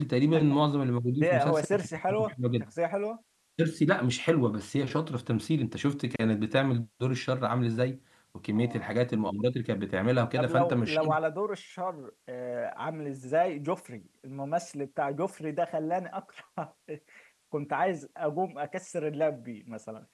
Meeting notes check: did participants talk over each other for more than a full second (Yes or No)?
Yes